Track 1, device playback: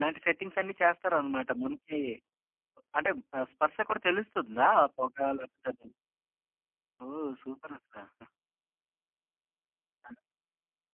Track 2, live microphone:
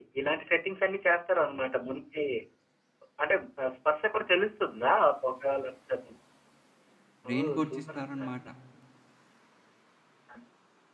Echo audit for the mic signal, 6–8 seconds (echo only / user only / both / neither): both